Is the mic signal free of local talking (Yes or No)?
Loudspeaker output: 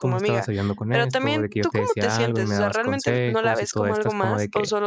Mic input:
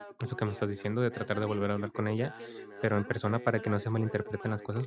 No